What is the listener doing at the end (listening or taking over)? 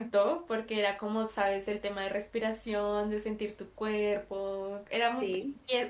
listening